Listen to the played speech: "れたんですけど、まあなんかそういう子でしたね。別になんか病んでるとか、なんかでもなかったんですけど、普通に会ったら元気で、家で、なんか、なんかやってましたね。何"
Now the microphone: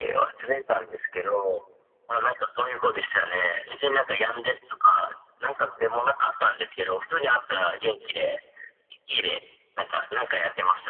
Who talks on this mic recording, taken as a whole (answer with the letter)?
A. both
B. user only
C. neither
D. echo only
D